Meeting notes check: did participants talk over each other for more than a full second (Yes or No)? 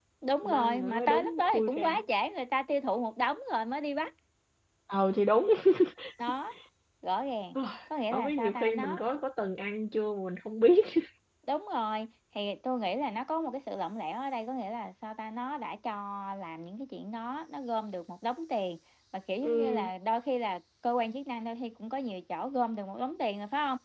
Yes